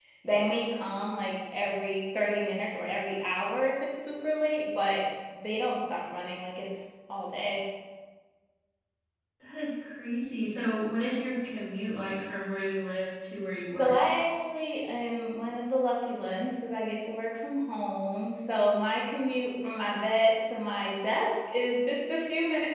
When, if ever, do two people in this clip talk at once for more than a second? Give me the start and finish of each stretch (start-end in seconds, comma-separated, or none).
none